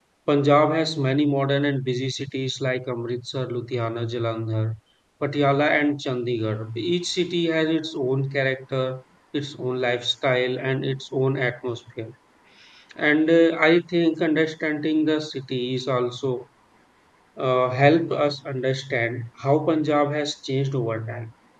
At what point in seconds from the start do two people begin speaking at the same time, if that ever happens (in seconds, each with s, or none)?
none